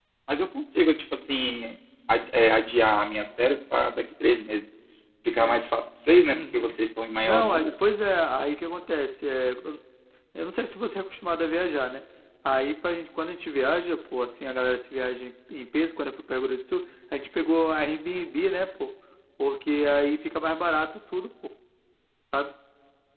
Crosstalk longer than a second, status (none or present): none